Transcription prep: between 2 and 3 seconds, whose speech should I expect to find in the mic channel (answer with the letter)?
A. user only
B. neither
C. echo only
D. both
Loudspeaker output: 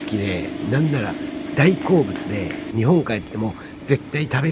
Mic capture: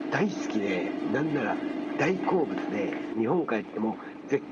C